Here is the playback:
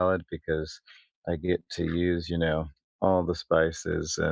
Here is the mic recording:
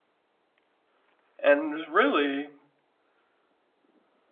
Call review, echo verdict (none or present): none